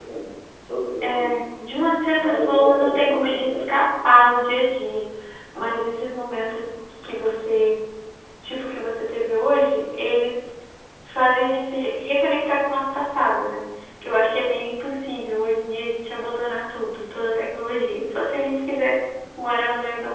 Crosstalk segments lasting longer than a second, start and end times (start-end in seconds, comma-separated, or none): 2.1-3.7